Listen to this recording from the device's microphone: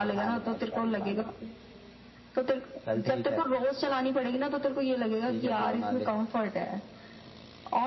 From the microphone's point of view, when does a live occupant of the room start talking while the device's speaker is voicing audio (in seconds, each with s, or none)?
none